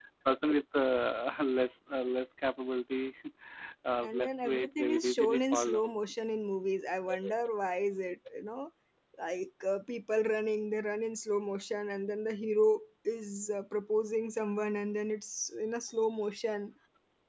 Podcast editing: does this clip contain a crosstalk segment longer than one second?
Yes, from 4.0 s

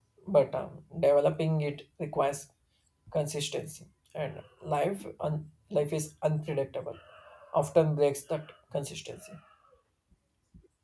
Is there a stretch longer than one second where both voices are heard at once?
No

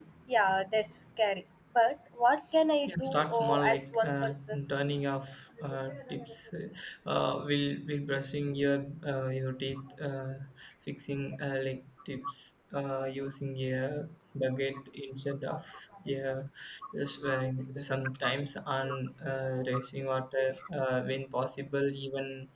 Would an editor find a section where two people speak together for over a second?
Yes, from 2.9 s

